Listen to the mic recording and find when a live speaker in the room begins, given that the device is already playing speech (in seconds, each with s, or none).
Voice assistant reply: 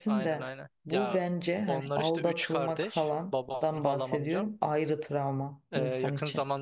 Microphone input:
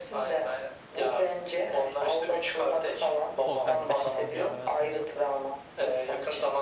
3.4 s